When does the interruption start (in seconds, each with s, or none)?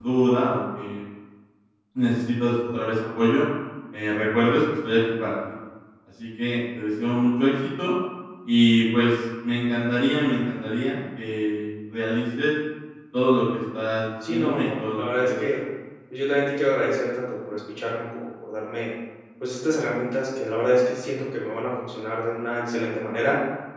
14.2 s